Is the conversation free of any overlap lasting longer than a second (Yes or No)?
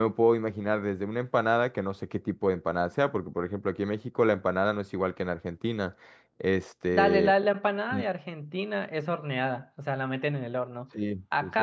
Yes